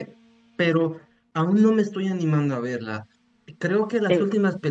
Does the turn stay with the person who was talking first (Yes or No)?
Yes